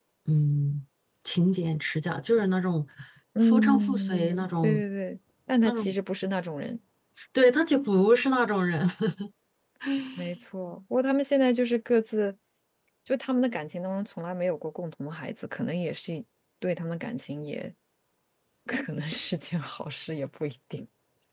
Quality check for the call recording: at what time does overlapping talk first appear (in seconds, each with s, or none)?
3.4 s